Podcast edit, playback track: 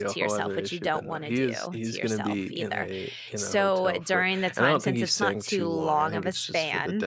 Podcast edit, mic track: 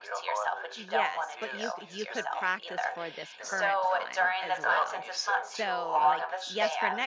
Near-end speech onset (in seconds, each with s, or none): 0.7 s